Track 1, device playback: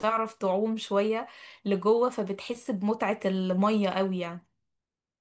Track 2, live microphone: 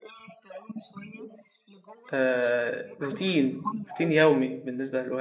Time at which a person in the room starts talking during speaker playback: 2.1 s

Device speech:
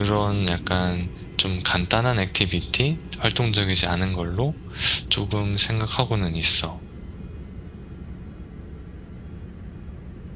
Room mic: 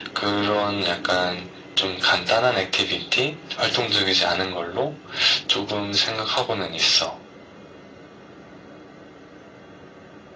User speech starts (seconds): none

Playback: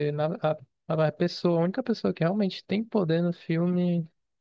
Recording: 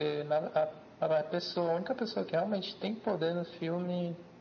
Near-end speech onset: none

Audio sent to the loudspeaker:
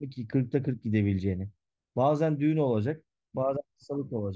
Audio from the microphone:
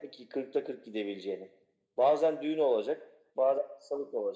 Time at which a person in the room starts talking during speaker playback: none

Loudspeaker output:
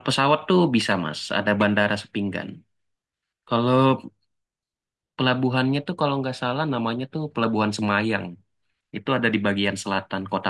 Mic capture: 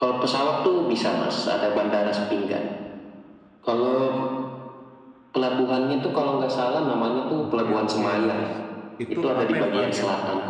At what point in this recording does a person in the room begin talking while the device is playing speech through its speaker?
7.4 s

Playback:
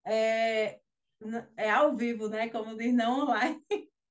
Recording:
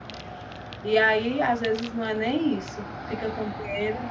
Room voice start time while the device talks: 0.8 s

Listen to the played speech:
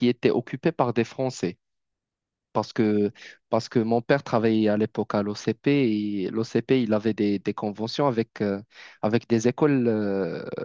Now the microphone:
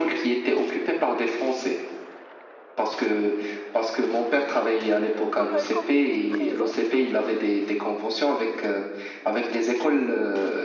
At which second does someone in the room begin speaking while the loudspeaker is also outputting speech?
5.2 s

